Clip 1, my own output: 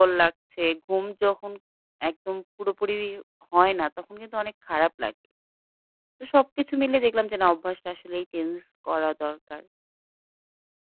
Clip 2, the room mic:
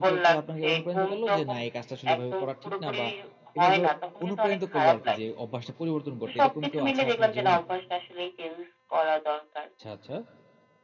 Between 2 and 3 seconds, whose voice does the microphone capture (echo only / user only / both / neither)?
both